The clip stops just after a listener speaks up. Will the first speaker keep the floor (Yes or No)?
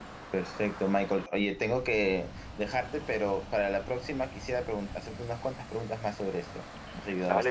No